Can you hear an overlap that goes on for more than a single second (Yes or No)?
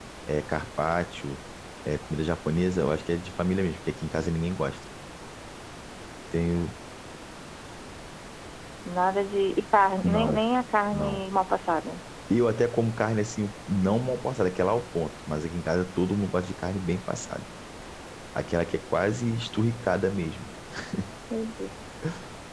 No